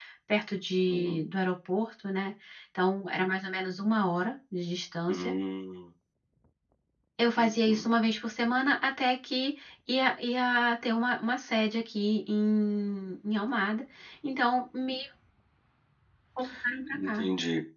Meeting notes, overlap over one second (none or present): none